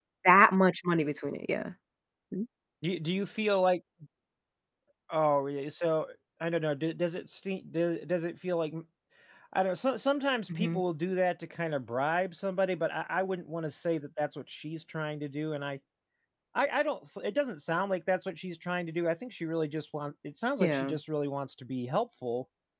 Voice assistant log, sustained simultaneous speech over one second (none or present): none